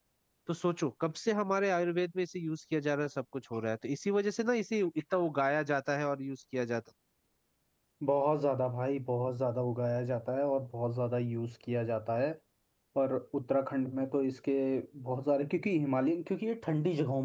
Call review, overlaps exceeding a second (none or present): none